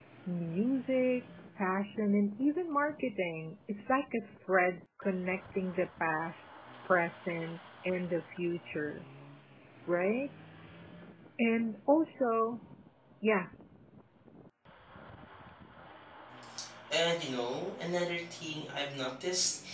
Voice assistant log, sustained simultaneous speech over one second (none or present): none